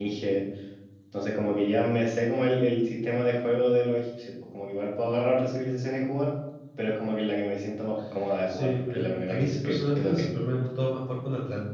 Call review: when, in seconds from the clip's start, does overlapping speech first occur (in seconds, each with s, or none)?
8.5 s